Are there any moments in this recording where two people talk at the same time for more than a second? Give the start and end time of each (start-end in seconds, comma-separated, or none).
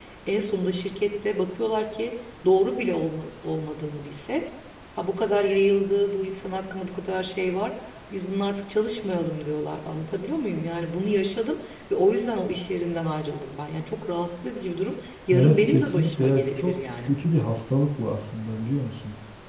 15.3-17.1